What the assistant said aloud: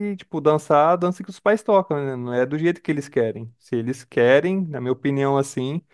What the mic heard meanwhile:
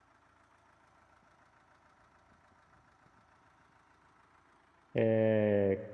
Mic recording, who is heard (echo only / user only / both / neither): user only